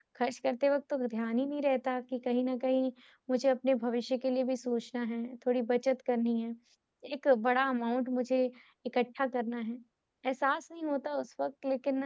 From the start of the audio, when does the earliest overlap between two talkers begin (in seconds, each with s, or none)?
none